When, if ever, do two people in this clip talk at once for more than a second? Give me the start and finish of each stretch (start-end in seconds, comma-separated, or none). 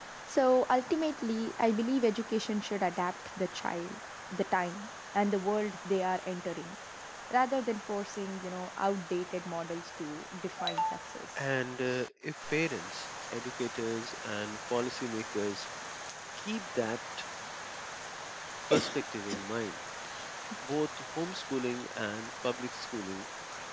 none